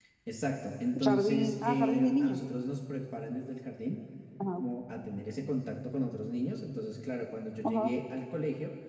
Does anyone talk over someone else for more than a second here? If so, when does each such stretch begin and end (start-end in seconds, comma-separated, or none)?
1.1-2.4